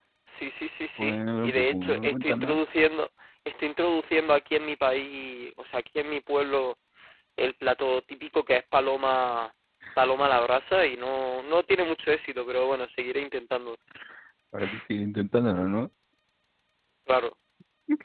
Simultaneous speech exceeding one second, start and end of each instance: 1.0-2.6

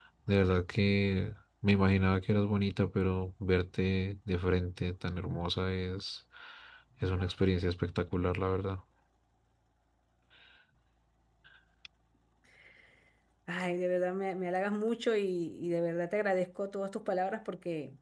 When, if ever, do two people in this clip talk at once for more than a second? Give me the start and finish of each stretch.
none

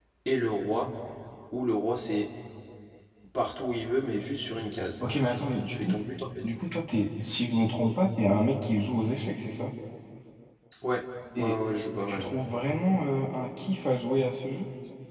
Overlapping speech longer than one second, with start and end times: none

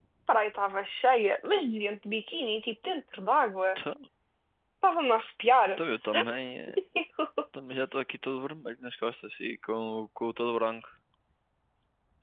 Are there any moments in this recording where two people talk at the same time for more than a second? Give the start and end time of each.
none

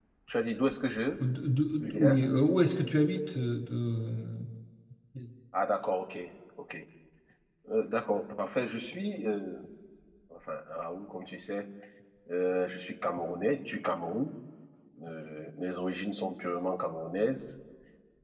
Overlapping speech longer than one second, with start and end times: none

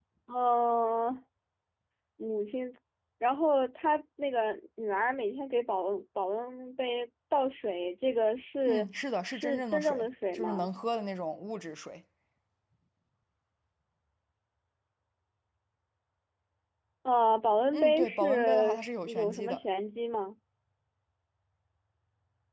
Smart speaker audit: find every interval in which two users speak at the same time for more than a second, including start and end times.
9.3-10.7, 17.7-19.6

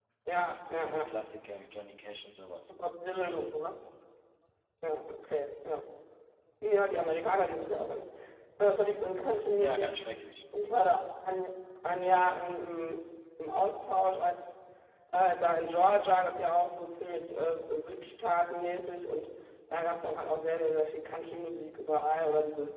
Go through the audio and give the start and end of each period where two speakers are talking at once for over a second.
none

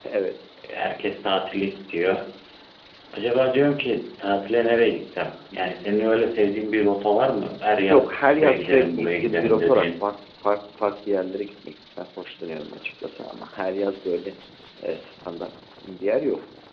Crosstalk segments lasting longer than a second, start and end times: 7.9-9.9

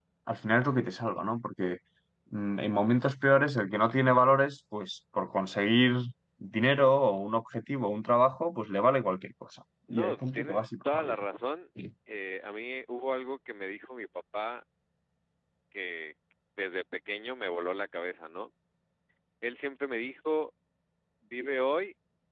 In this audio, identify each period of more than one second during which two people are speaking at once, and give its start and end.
9.9-11.2

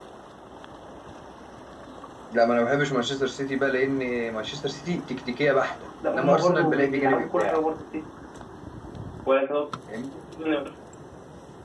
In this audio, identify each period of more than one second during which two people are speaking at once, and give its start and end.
6.1-7.6

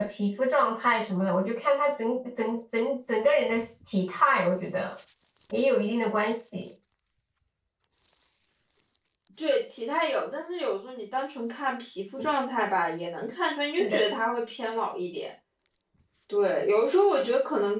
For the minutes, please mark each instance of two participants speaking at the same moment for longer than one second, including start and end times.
none

